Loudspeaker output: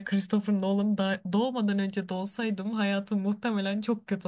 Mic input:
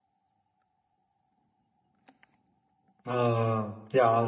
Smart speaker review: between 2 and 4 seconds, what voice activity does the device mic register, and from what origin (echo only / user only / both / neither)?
user only